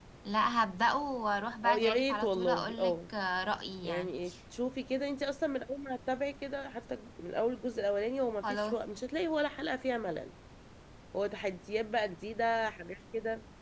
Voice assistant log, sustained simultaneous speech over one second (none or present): present